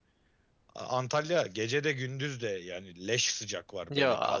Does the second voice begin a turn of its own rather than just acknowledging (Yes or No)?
Yes